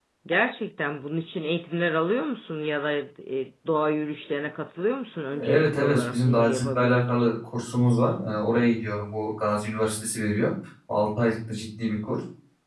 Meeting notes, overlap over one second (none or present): present